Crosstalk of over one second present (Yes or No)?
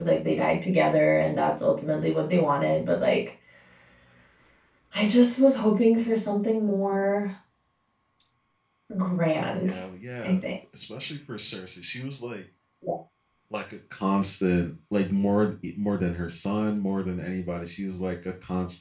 No